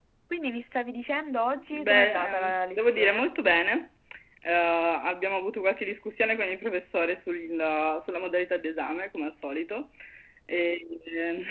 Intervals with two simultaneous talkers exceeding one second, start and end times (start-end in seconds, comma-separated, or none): 1.7-3.3